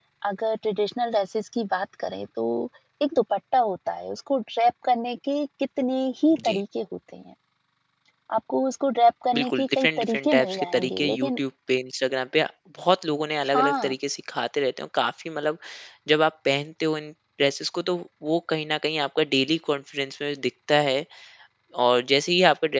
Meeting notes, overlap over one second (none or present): present